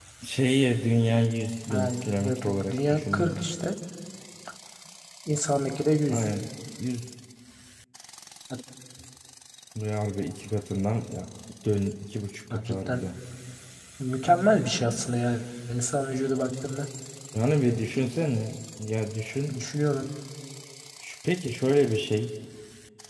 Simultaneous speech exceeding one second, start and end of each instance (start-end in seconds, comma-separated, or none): 1.7-3.4